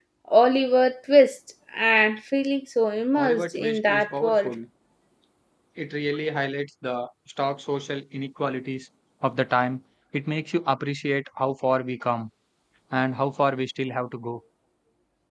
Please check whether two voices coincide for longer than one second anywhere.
Yes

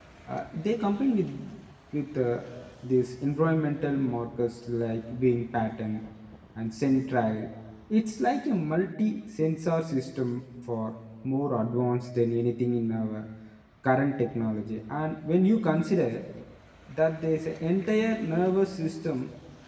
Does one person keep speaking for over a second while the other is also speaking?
No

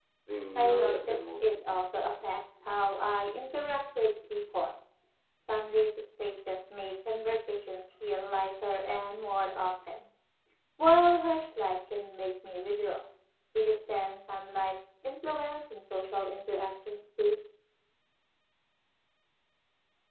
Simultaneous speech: Yes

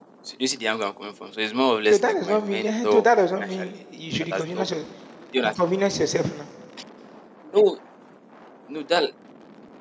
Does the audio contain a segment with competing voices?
Yes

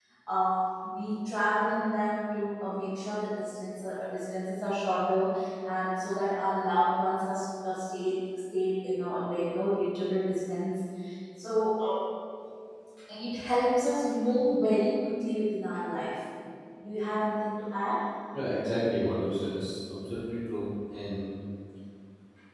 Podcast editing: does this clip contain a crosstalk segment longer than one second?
No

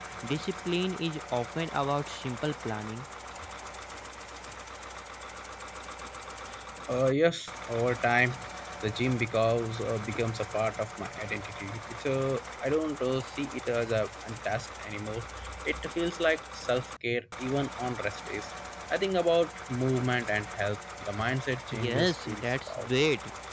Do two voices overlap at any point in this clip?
Yes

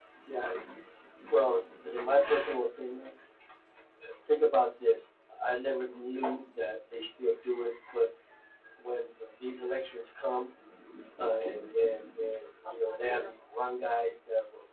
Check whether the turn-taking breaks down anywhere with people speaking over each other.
No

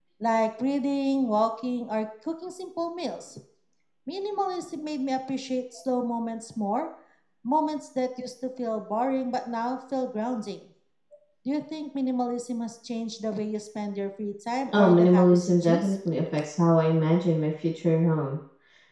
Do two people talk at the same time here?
Yes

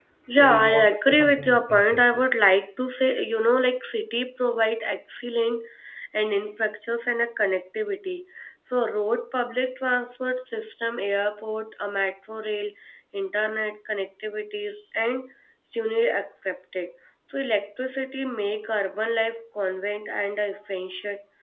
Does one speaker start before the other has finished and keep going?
Yes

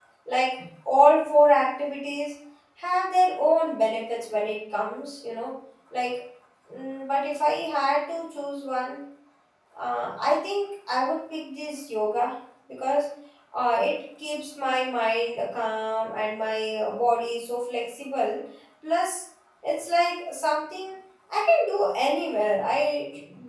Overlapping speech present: No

